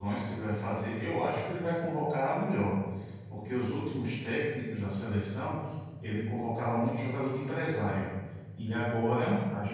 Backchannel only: Yes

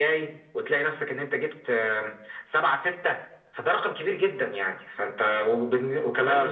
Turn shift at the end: No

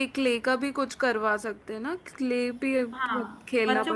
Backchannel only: No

